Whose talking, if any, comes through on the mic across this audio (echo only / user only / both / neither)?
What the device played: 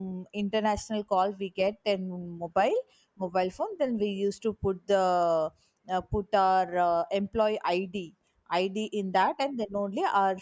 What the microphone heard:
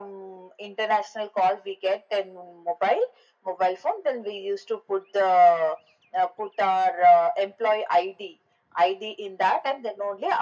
echo only